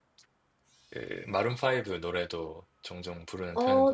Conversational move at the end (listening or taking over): taking over